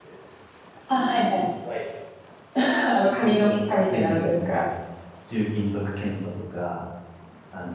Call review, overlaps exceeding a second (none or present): present